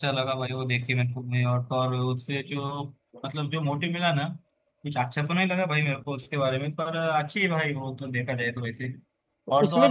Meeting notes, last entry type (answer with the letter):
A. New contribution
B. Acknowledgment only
B